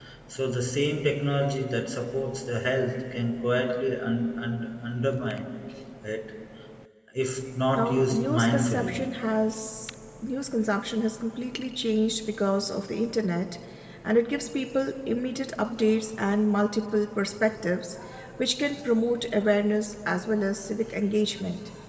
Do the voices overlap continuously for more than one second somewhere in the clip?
Yes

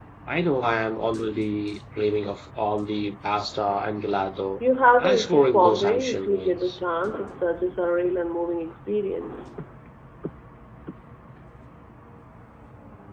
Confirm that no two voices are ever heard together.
No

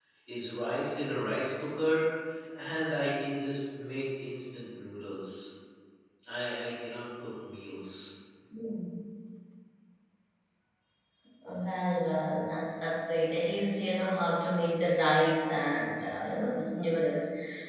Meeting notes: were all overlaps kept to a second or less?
Yes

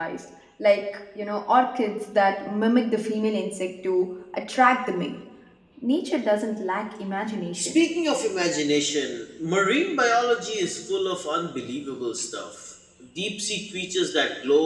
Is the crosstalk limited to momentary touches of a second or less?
Yes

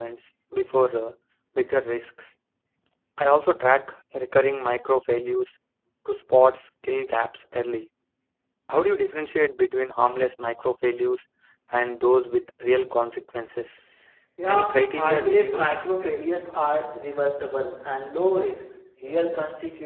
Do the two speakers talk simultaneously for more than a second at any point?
Yes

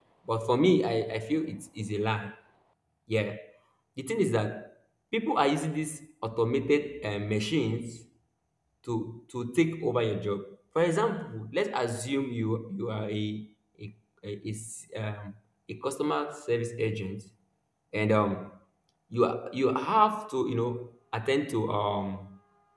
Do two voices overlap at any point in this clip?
No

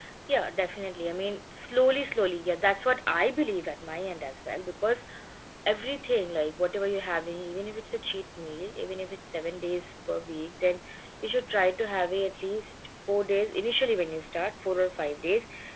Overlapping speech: No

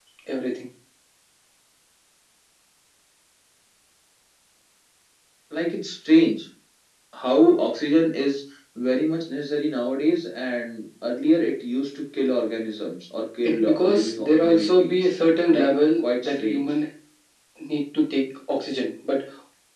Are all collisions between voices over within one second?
No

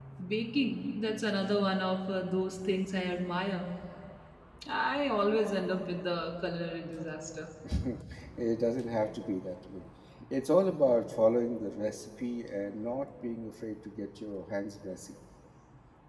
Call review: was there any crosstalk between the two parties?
No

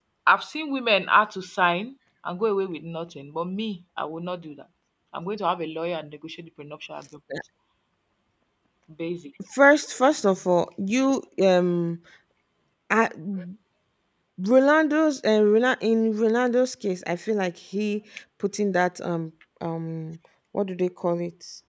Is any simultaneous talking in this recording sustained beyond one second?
No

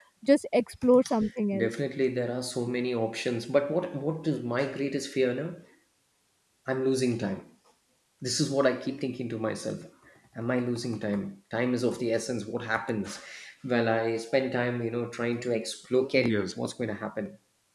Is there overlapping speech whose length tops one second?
No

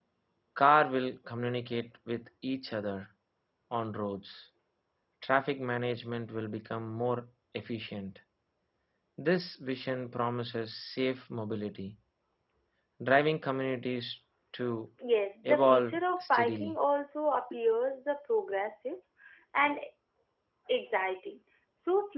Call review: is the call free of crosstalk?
No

